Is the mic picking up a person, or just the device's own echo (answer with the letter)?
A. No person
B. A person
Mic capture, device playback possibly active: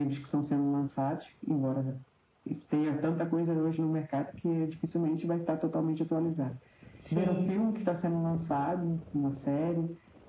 B